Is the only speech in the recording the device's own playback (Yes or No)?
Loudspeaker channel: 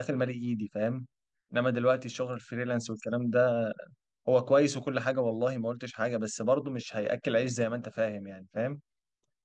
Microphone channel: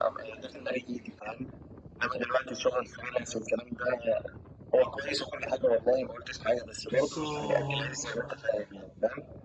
No